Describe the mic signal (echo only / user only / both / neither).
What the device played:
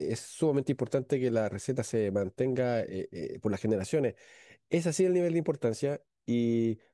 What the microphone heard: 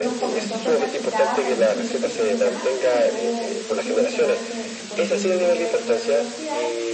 both